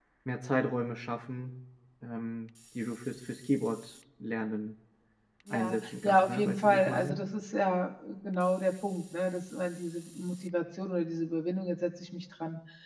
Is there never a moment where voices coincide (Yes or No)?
No